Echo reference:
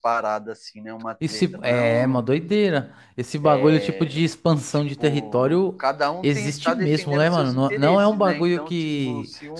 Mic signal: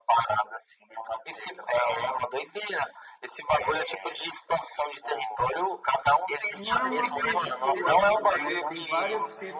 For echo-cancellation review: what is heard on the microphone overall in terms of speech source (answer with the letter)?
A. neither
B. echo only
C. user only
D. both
D